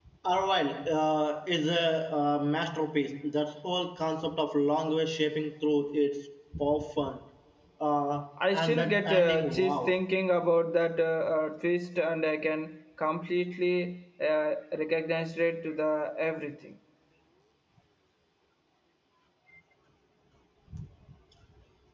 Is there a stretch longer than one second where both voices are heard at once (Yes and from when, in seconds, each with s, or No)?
Yes, from 8.5 s